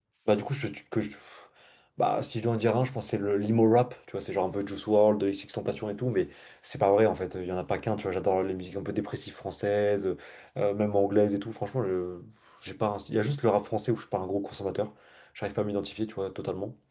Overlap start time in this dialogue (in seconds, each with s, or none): none